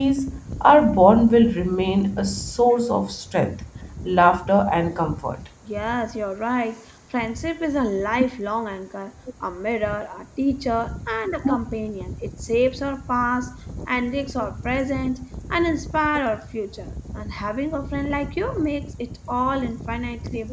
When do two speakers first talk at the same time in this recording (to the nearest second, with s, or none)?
none